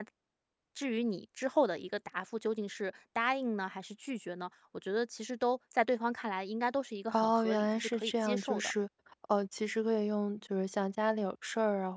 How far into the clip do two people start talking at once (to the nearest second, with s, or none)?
7 s